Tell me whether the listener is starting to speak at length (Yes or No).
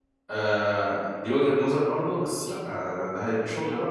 No